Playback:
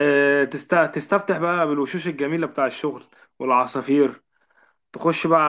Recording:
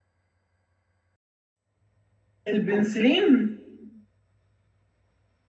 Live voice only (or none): البنسلين